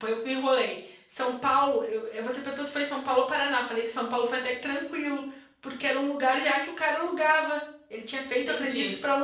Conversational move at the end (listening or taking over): listening